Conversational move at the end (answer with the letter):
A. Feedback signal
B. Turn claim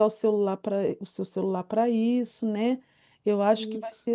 A